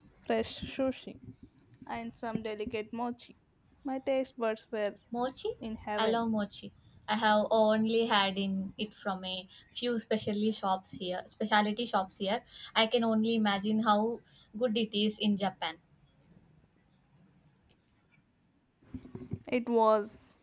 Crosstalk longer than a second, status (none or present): none